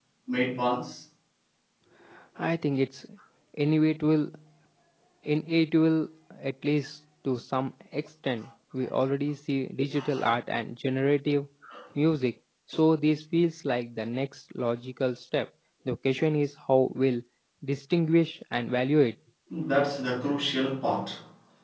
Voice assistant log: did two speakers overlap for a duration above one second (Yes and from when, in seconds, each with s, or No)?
No